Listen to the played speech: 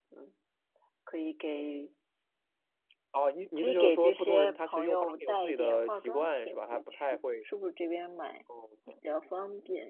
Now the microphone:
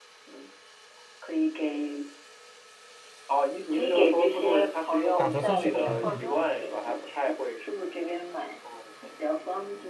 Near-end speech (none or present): present